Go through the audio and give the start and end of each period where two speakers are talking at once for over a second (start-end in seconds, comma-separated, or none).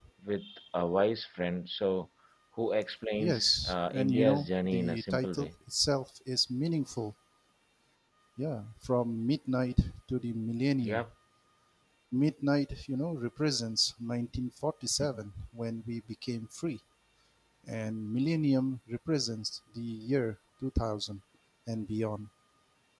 3.2-5.5